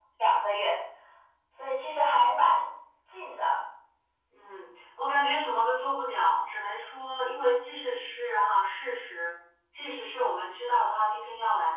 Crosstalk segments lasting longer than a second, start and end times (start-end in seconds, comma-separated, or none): none